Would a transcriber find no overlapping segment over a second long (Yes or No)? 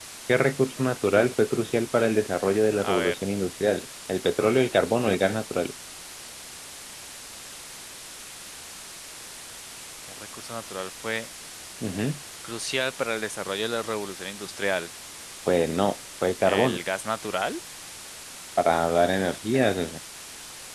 Yes